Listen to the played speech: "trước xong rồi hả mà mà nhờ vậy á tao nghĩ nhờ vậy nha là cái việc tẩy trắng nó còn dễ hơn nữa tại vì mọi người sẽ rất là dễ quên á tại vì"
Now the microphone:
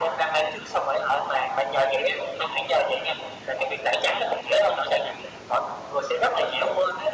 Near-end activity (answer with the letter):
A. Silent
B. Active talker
A